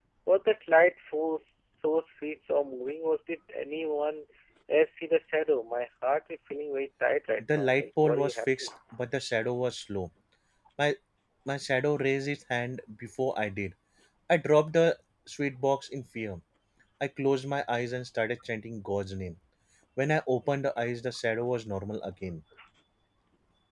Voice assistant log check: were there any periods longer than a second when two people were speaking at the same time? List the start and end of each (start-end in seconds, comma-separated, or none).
7.4-8.7